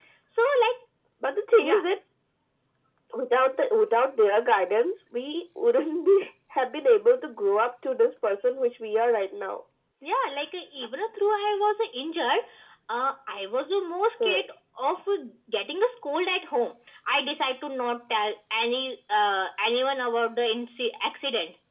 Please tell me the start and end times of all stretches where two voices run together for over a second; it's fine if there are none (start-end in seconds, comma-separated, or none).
none